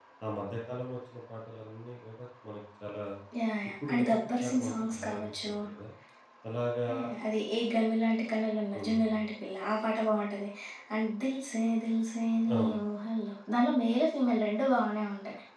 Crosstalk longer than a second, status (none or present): present